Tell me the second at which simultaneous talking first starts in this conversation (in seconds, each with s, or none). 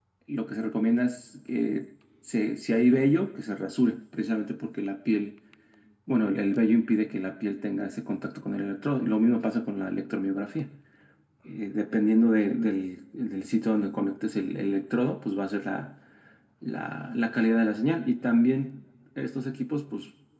none